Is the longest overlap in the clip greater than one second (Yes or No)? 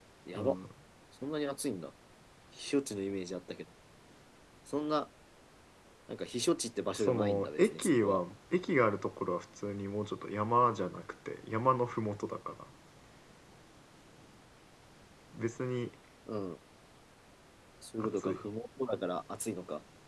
Yes